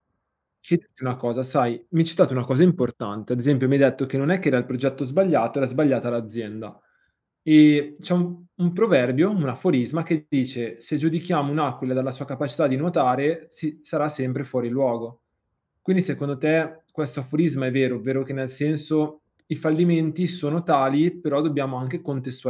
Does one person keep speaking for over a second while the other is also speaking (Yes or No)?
No